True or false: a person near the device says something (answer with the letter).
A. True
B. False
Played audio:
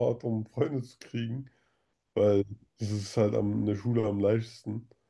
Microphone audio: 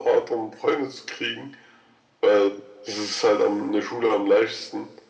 B